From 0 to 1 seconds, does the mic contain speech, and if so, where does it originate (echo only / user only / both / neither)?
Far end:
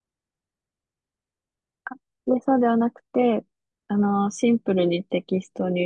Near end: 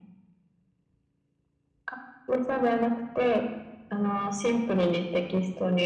neither